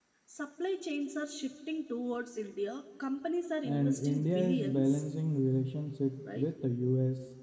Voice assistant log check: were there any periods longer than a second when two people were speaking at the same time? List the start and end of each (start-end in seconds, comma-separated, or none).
3.6-5.0